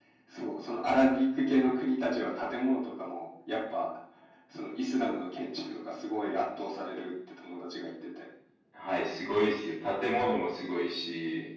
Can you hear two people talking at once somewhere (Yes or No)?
No